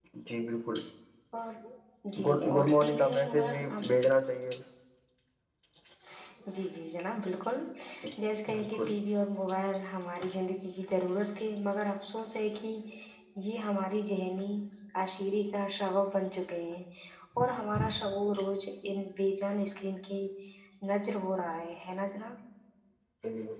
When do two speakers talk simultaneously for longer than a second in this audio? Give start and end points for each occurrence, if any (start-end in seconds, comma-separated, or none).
2.2-3.8